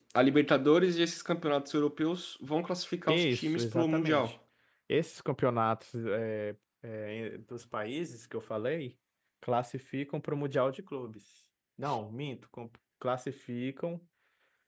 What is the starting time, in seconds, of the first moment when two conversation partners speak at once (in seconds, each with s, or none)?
3.0 s